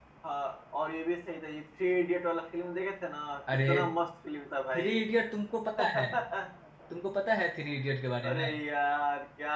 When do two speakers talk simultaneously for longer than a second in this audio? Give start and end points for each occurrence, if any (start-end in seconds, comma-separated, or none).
none